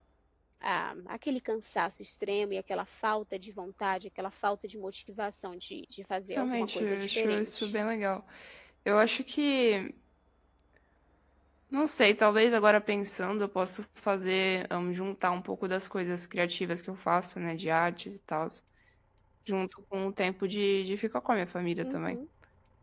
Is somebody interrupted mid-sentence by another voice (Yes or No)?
Yes